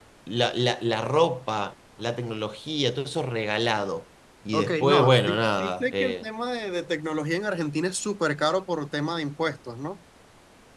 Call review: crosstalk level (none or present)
present